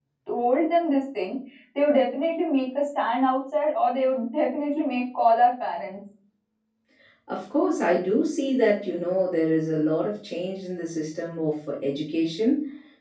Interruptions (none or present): none